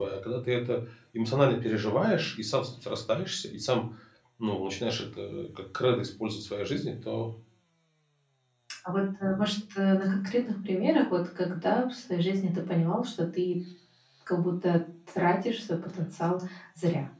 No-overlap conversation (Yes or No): Yes